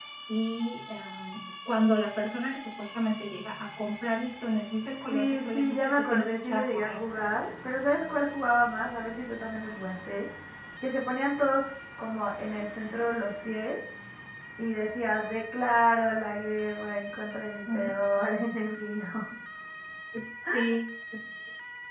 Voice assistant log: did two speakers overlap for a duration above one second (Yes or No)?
Yes